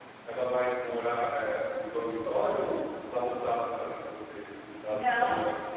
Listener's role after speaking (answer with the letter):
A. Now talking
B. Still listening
A